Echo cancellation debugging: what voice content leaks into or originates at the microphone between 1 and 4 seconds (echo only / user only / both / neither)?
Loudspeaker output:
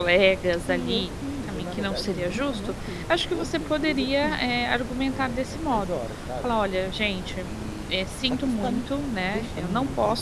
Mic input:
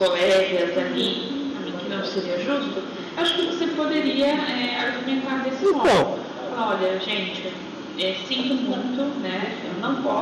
echo only